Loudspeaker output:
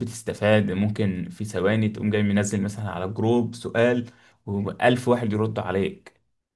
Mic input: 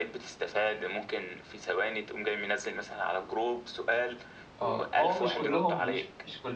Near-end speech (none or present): present